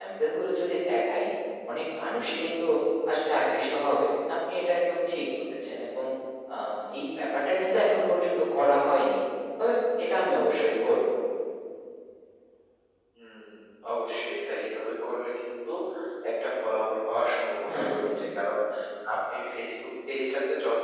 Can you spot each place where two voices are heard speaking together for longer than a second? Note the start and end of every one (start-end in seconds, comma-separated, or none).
none